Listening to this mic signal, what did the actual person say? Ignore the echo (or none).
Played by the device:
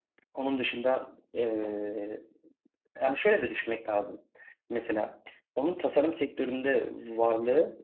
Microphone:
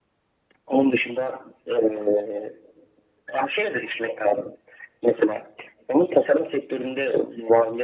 none